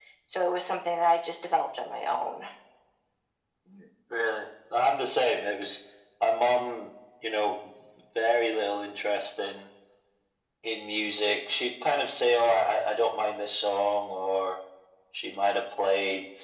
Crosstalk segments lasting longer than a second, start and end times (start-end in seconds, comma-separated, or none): none